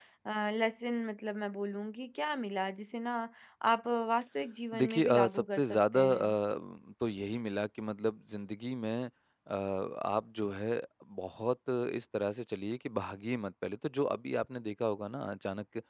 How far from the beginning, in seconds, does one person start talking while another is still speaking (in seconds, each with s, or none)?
4.7 s